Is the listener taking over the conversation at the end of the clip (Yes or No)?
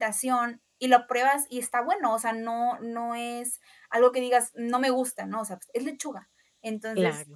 No